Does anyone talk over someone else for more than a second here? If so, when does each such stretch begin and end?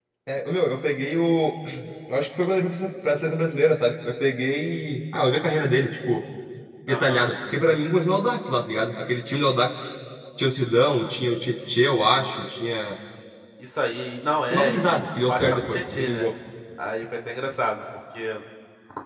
14.5-16.2

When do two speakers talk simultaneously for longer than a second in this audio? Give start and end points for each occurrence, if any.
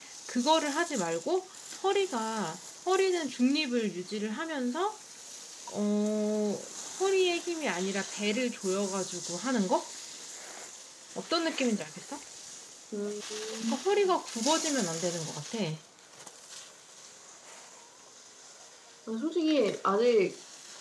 none

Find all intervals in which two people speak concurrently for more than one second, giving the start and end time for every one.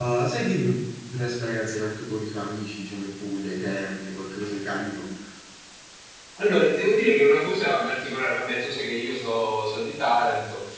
none

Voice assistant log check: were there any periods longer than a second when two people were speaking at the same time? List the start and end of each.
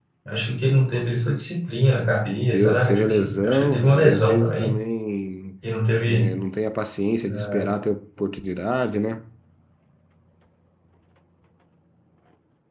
2.5-4.8

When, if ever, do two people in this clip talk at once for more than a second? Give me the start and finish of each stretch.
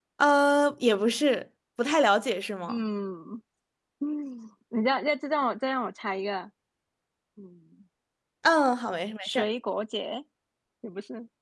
none

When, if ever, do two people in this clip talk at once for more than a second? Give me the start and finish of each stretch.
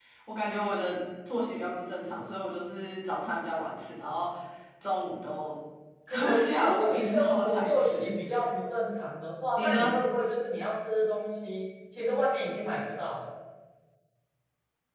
6.1-8.1

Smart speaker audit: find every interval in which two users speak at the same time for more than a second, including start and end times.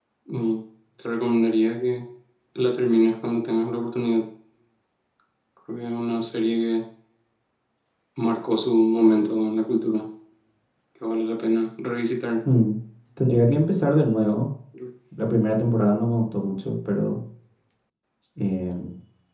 none

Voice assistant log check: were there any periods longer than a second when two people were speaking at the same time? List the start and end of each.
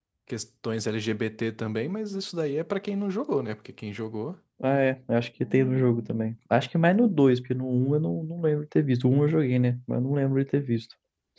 none

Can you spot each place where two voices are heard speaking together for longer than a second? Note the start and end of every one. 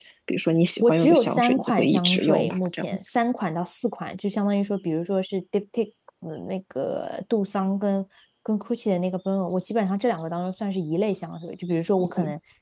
0.8-2.9

